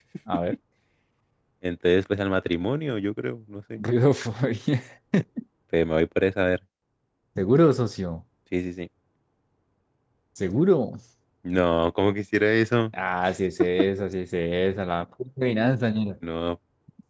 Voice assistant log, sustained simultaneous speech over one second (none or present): none